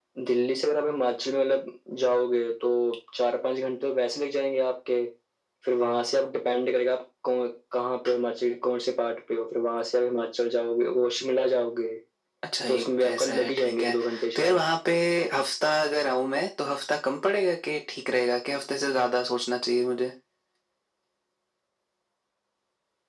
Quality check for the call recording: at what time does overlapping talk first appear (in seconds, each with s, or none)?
12.7 s